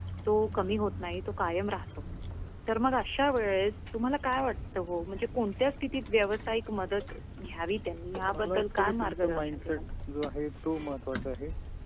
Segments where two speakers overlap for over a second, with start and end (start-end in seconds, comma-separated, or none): 8.3-9.8